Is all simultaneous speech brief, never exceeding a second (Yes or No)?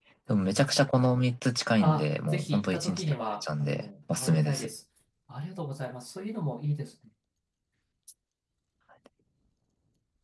No